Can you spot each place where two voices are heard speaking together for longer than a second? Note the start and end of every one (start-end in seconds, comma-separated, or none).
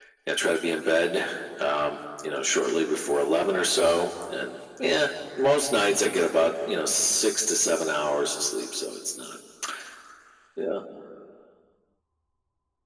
none